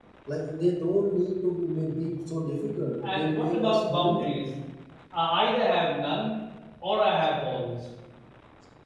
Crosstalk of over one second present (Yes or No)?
Yes